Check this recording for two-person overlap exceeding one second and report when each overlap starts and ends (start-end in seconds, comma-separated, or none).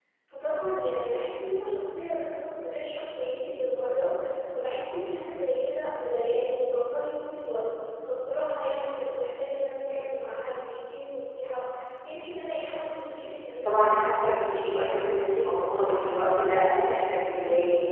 none